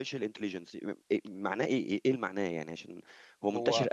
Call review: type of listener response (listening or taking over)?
listening